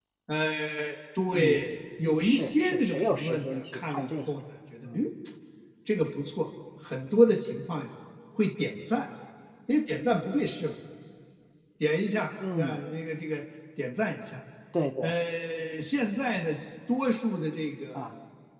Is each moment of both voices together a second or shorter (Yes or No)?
No